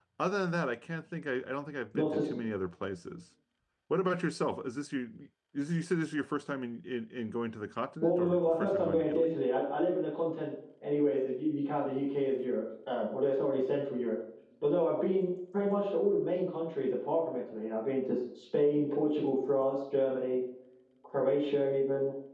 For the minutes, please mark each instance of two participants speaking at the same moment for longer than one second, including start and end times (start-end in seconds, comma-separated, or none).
8.0-9.4